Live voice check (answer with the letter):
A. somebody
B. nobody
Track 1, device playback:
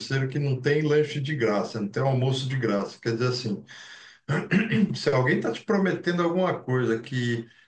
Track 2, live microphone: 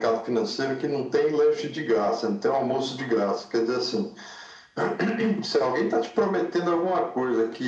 B